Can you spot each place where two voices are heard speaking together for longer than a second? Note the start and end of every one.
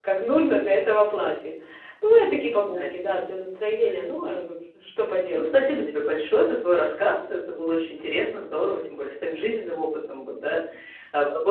none

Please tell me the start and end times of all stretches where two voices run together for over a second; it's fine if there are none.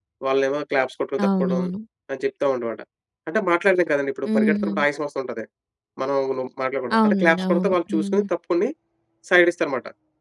7.0-8.2

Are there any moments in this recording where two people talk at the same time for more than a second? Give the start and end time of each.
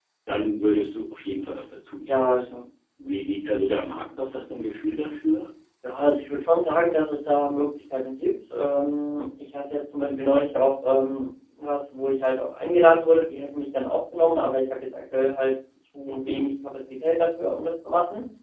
none

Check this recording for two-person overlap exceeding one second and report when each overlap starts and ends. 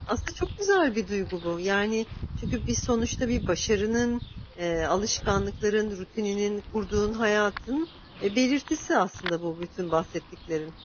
none

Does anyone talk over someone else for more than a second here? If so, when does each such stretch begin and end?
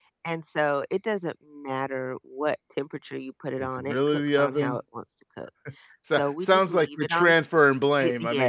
3.6-4.8, 6.1-7.3

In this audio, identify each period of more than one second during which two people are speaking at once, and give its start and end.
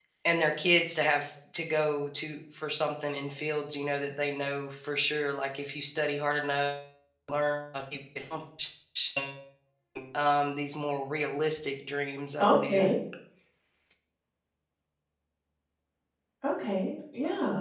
none

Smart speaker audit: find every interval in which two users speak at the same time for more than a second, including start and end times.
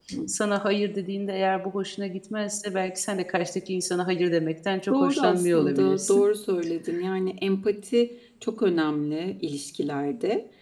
4.9-6.3

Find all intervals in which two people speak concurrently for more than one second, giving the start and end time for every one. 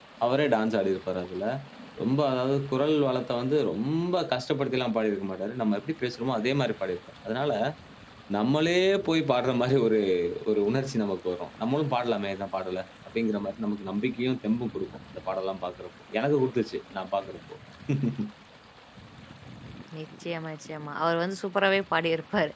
none

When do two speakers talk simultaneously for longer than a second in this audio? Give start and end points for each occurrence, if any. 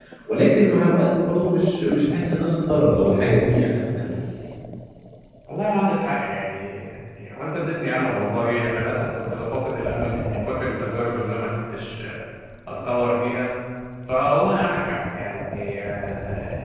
none

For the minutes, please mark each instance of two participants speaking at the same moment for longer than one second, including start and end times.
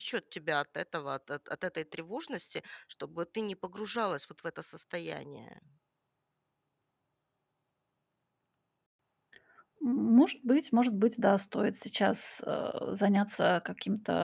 none

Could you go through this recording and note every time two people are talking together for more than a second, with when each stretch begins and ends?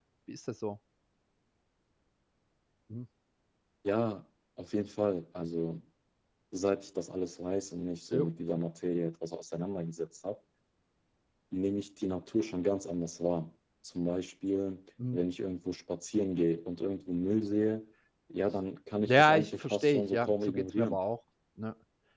19.1-21.0

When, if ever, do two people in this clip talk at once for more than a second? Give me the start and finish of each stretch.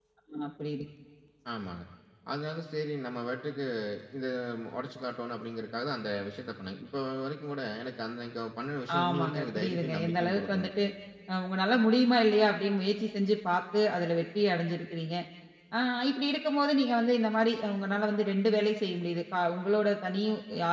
9.0-10.7

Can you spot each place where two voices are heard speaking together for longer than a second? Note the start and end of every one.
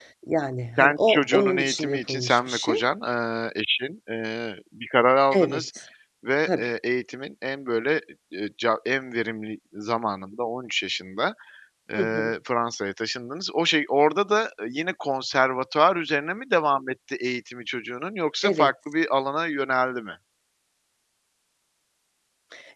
0.8-2.8

